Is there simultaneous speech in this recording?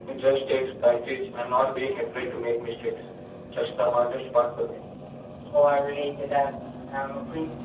No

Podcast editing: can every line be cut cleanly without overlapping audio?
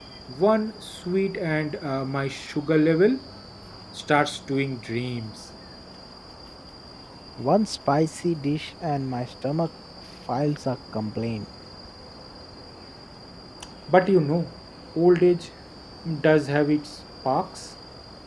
Yes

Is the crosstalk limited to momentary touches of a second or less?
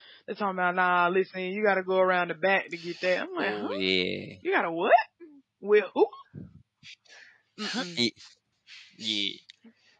Yes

